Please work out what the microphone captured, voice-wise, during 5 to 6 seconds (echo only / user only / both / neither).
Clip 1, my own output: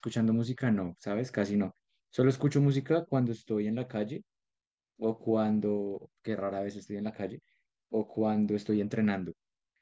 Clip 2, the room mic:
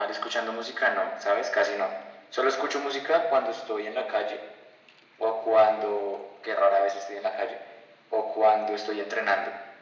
echo only